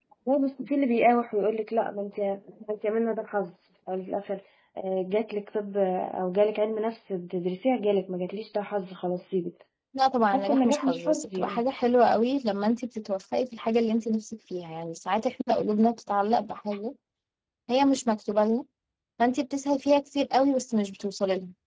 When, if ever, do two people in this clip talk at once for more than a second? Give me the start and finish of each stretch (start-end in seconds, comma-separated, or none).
10.3-11.6